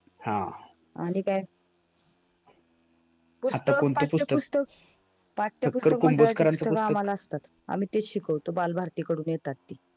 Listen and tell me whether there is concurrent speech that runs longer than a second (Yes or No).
Yes